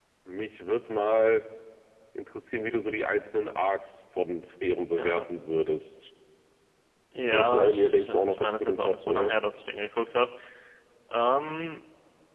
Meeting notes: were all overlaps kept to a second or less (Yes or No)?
No